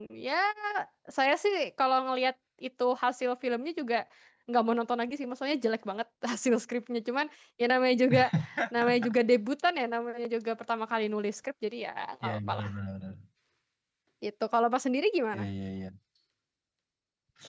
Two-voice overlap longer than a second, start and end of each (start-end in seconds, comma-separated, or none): none